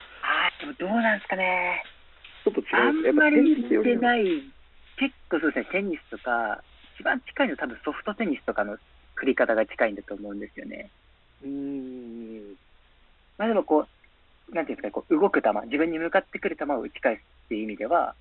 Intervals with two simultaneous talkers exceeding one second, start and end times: 2.7-4.1

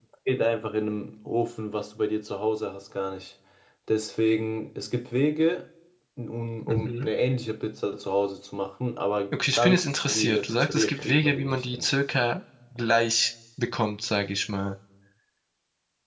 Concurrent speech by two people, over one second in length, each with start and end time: 9.3-11.9

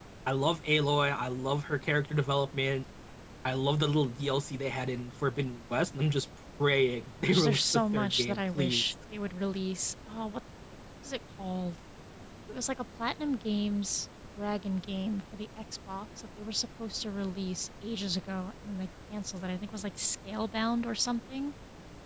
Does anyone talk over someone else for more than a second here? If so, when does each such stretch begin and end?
7.2-8.8

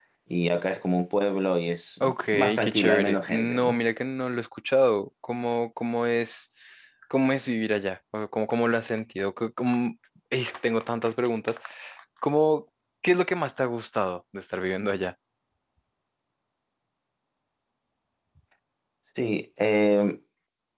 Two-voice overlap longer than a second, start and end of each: 2.0-3.8

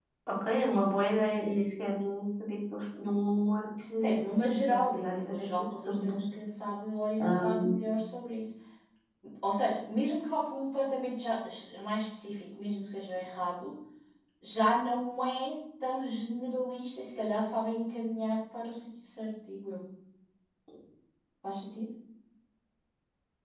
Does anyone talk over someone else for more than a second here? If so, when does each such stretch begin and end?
4.0-6.2

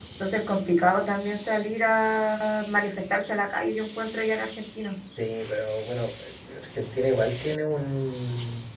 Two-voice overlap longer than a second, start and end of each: none

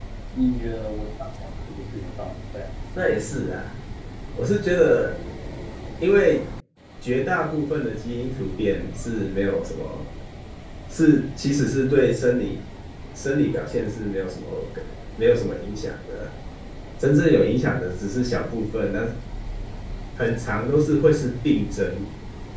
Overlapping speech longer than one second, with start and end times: none

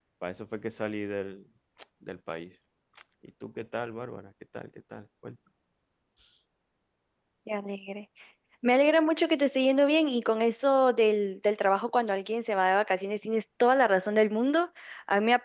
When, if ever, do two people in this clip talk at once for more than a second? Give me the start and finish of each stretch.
none

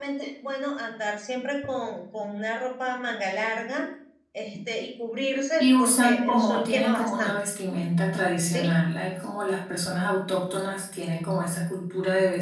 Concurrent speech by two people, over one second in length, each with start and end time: 5.6-7.3

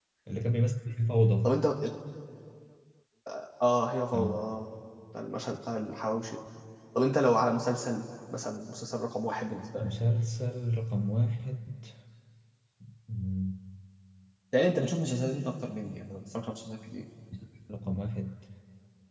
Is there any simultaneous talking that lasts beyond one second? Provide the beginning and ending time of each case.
none

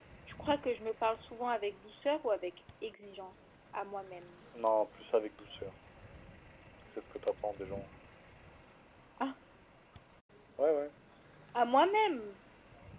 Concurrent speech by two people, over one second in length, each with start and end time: none

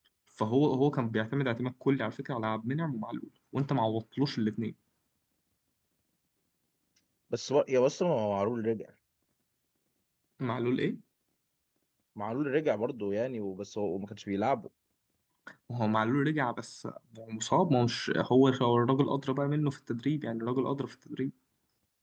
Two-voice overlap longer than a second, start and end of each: none

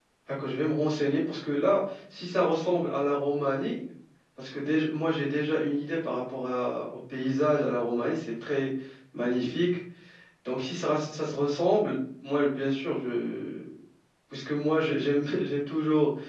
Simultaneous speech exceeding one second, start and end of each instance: none

